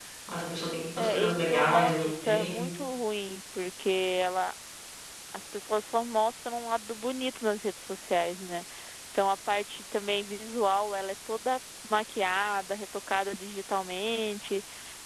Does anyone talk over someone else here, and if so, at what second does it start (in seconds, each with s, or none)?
1.0 s